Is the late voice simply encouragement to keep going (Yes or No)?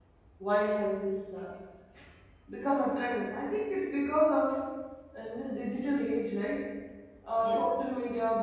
Yes